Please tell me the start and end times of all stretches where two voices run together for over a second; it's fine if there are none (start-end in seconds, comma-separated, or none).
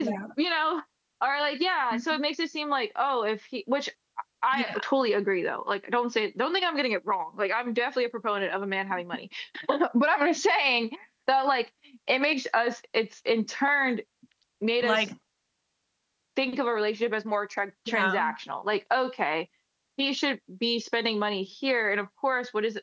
none